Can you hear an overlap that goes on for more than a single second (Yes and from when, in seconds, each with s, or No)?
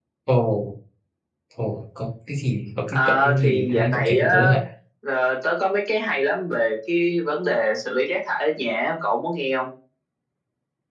Yes, from 2.9 s